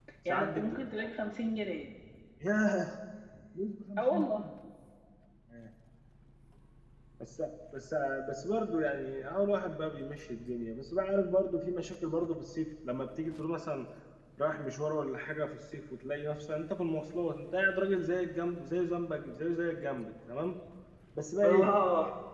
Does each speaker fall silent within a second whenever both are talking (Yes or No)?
Yes